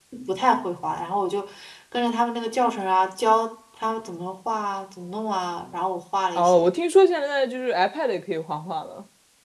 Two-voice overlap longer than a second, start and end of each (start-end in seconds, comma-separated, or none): none